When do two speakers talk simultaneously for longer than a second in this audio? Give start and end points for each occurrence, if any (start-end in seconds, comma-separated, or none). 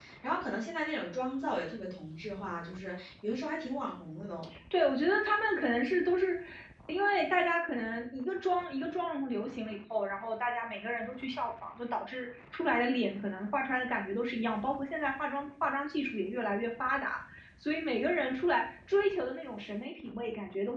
none